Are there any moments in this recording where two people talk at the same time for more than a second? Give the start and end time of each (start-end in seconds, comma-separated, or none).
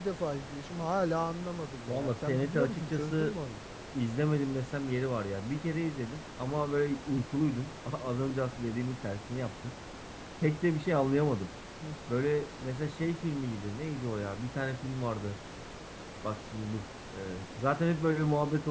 1.9-3.4